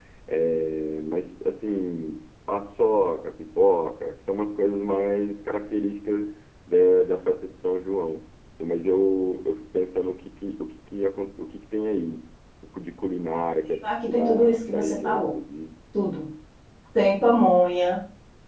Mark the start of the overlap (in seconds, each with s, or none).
13.8 s